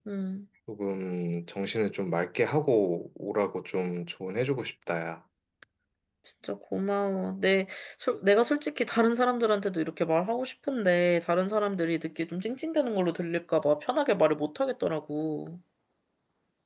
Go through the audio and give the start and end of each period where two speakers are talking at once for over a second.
none

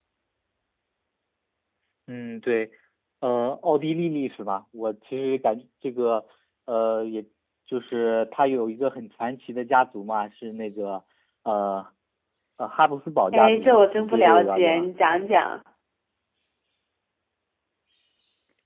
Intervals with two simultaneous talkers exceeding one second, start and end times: 13.3-14.8

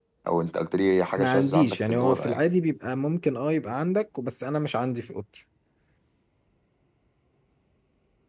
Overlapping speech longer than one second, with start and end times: 1.2-2.4

